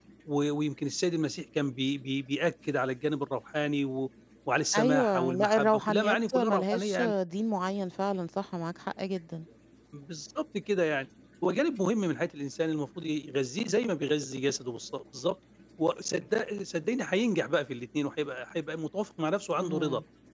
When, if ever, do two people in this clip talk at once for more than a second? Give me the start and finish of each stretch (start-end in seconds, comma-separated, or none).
4.8-7.1